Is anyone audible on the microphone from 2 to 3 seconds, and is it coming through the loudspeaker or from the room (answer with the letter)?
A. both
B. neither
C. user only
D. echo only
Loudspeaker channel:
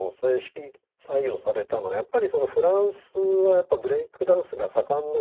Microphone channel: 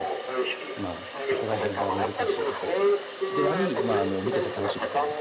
A